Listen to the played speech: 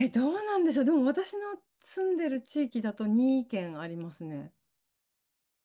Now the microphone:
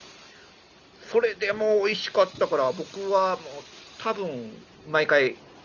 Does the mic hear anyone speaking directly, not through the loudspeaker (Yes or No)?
Yes